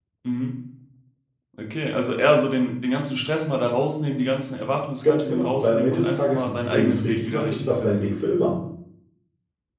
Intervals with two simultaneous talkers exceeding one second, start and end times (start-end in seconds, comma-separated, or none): 5.0-8.2